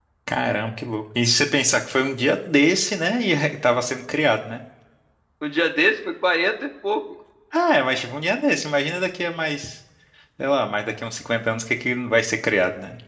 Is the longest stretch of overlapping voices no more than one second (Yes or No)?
Yes